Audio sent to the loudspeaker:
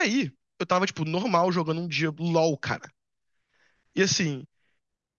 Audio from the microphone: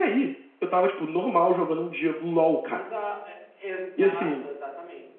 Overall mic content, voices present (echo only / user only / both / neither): both